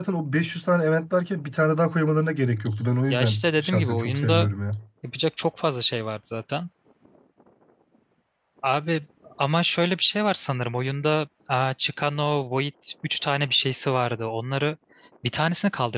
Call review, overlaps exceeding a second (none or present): present